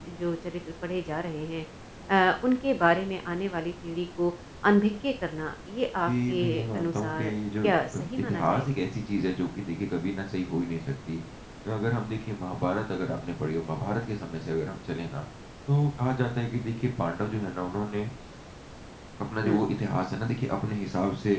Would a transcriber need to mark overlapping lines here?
Yes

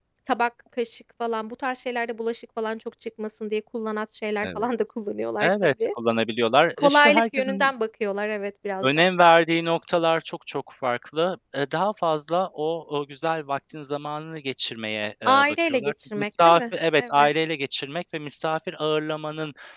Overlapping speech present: Yes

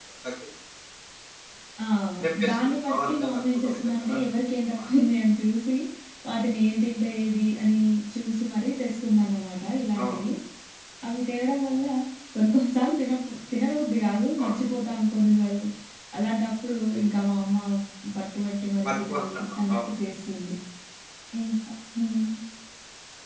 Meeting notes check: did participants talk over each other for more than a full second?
Yes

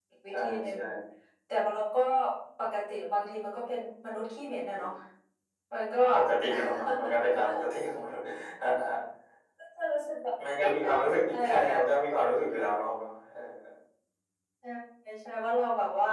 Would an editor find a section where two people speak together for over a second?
Yes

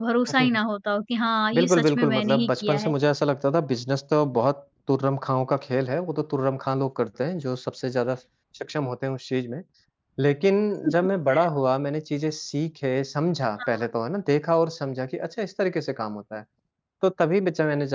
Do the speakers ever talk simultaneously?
Yes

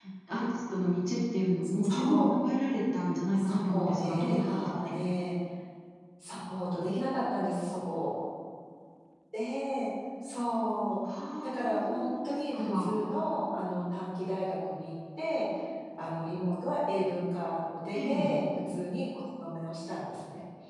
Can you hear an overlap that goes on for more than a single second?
Yes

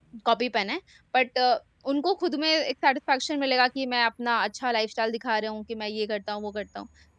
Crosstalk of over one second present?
No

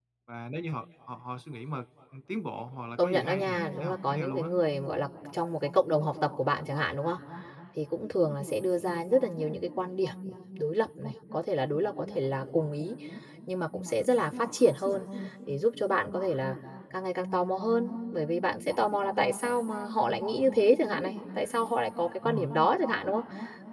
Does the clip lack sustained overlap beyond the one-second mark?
No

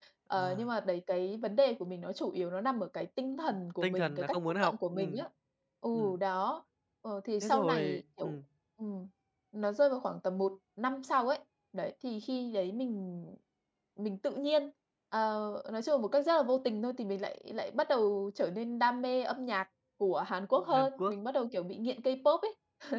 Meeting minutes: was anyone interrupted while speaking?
Yes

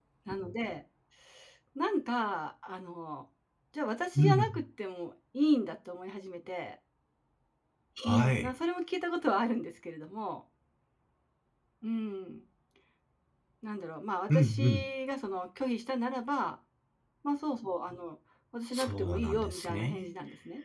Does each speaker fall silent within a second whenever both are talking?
No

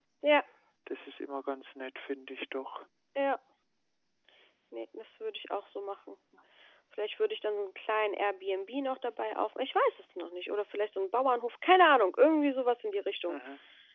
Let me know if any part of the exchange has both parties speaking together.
No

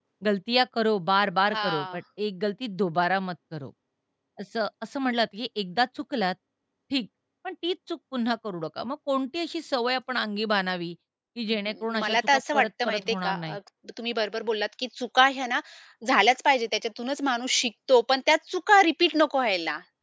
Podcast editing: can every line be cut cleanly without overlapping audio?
No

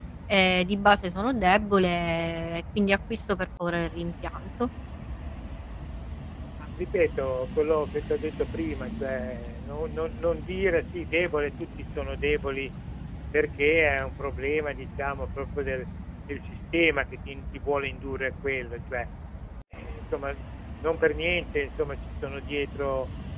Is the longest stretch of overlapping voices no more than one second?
Yes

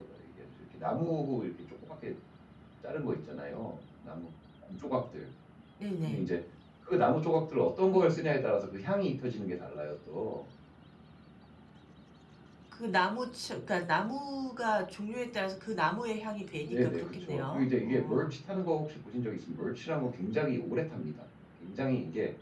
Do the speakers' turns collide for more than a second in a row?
Yes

